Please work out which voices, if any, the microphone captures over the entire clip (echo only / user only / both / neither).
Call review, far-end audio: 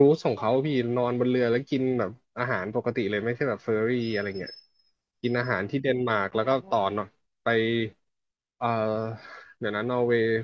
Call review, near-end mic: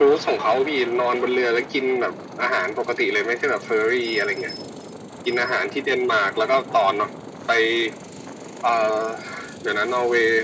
echo only